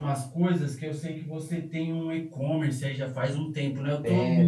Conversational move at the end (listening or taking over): listening